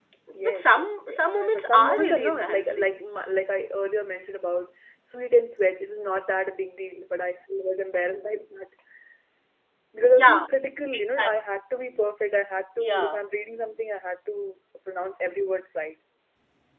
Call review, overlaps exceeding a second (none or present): present